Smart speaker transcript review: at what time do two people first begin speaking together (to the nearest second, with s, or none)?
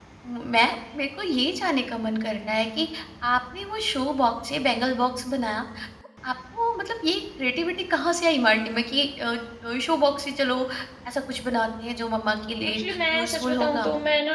13 s